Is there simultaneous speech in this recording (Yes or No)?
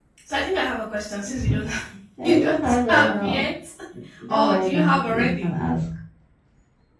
Yes